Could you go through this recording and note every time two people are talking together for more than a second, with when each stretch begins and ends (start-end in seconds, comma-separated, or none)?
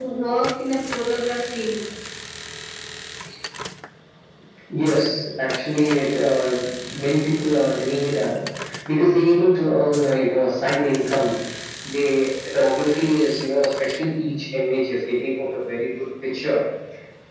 none